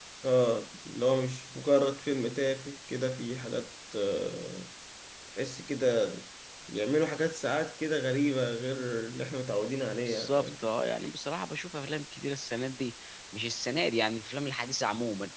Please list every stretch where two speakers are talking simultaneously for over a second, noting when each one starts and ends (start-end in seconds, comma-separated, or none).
none